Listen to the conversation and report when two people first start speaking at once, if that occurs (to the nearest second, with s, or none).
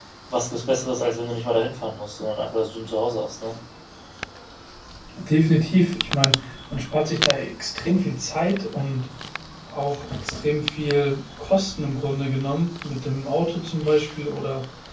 none